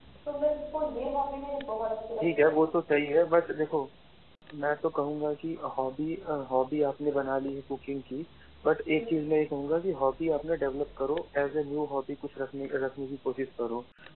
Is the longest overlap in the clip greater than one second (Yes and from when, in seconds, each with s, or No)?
No